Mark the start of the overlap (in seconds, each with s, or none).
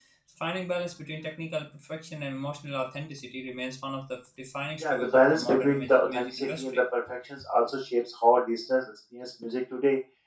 4.8 s